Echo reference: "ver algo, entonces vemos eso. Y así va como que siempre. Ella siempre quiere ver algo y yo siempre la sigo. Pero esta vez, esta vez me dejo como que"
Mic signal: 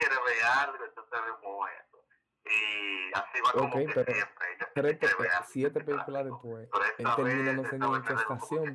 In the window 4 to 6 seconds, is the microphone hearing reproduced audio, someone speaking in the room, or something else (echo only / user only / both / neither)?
both